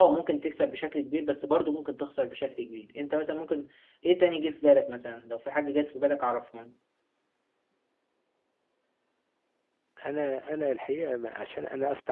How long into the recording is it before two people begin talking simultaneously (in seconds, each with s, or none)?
none